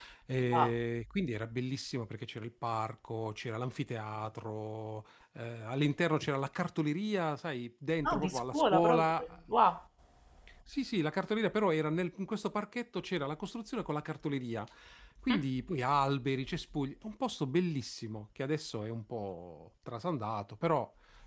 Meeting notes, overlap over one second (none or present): present